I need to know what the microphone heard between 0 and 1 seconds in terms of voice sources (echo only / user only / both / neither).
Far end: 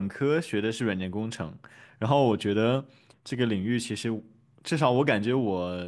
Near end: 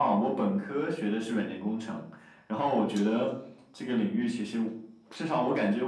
echo only